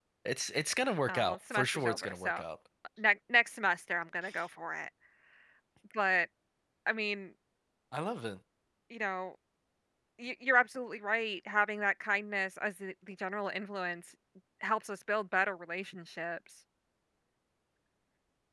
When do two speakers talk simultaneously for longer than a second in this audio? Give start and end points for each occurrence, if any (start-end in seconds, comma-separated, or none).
1.1-2.4